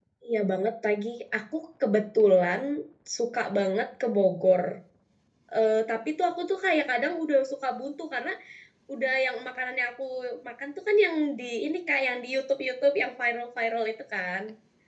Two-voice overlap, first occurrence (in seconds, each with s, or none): none